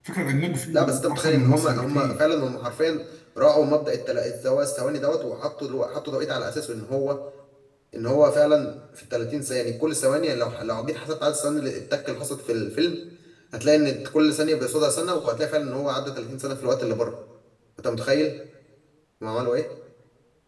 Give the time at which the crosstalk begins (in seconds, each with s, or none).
0.7 s